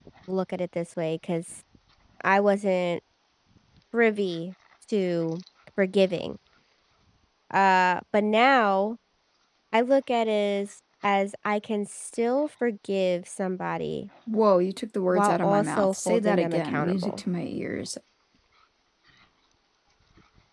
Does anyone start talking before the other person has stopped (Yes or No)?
Yes